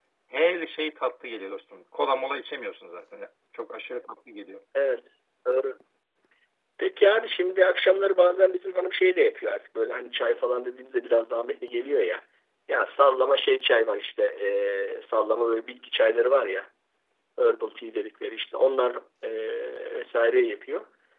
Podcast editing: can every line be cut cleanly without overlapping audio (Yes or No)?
Yes